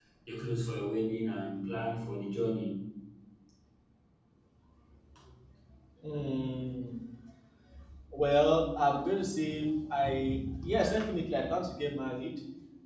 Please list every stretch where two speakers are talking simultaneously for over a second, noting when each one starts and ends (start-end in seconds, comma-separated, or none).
none